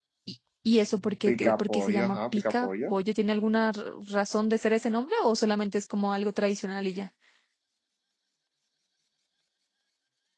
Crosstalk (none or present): present